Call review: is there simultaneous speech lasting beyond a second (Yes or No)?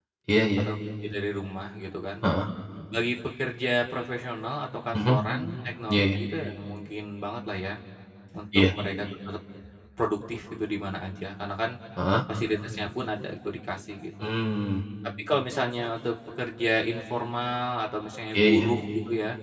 No